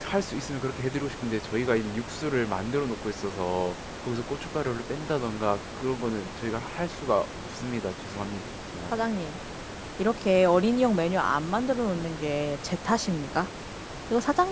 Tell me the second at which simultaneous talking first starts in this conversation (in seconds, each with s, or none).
none